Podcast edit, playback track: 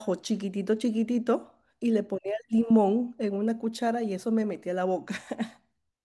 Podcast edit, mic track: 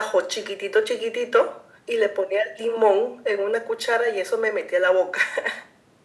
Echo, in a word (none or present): present